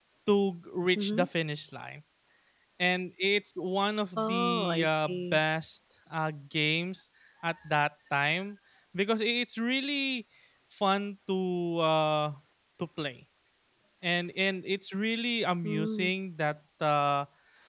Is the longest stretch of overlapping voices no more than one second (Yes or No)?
No